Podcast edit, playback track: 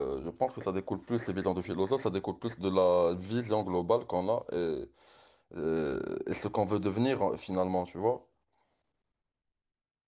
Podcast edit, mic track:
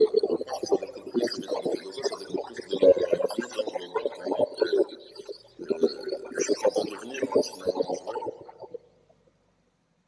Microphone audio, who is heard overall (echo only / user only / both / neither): echo only